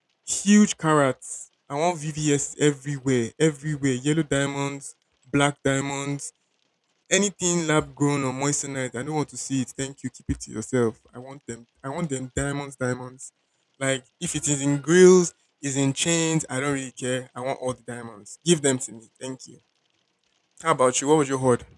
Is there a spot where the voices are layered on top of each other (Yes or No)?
No